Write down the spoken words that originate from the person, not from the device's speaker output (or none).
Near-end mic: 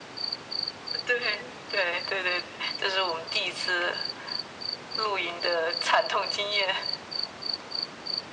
none